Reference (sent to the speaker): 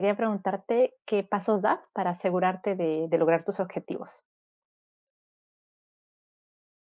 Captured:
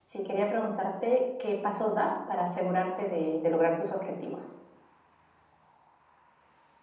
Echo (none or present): present